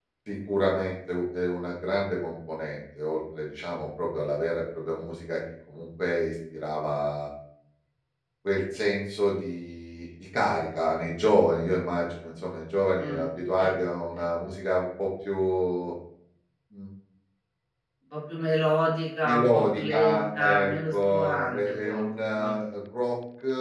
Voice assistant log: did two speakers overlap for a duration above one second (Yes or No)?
Yes